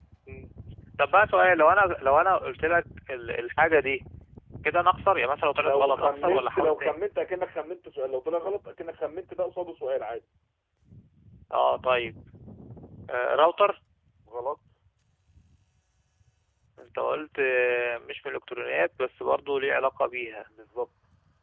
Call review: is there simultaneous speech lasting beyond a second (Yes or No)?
Yes